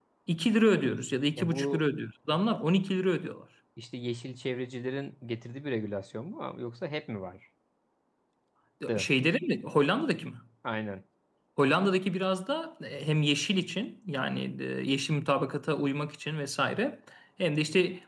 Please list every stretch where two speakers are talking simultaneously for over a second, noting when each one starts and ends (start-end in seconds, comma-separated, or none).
none